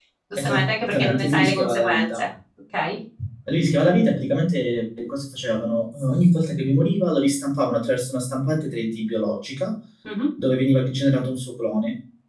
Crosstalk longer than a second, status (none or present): present